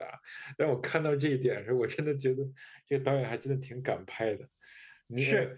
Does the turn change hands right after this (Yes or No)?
Yes